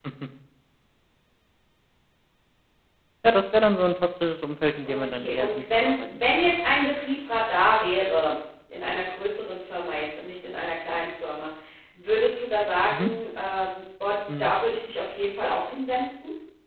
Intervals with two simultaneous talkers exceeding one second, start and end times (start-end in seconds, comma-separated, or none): 4.8-6.4